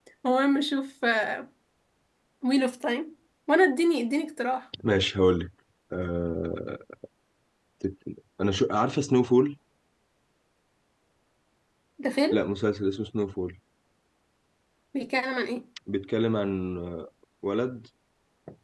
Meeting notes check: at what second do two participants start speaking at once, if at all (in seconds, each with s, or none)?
none